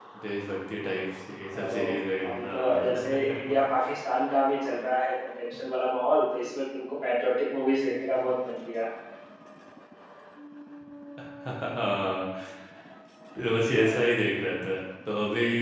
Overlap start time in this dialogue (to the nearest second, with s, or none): 2 s